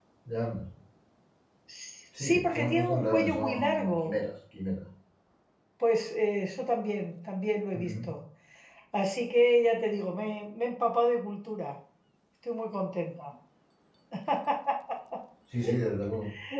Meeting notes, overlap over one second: present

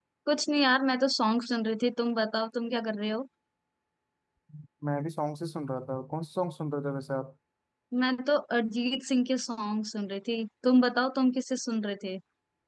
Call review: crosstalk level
none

